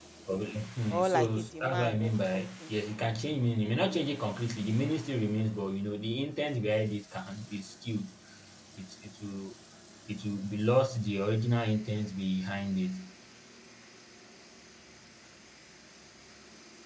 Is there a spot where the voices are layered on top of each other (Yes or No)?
Yes